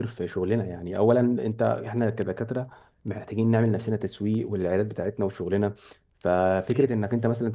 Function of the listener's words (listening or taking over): listening